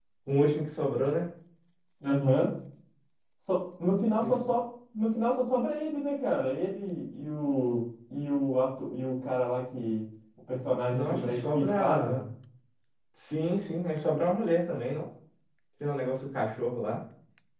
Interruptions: present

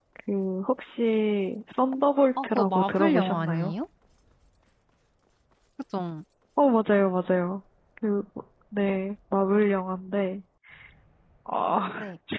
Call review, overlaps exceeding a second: present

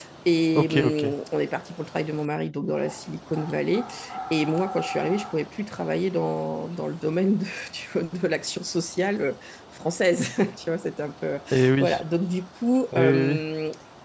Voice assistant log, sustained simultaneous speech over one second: none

